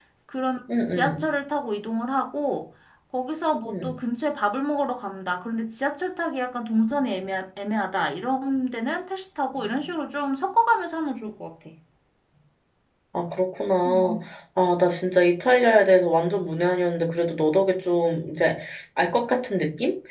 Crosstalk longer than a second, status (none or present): none